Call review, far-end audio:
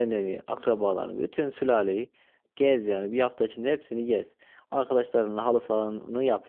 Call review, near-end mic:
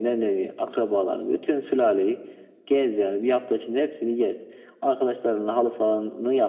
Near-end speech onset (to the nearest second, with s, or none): none